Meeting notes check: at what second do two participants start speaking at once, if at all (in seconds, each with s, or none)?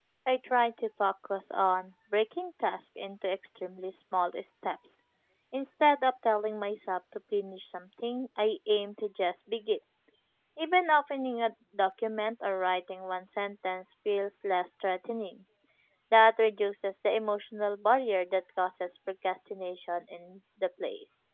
none